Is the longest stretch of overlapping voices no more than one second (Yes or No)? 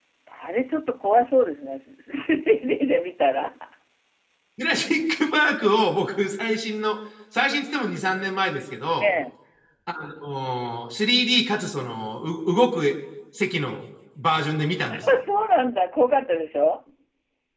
Yes